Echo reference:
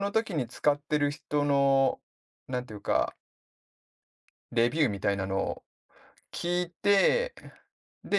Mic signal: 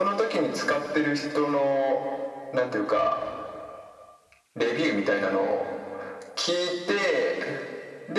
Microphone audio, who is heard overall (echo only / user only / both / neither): echo only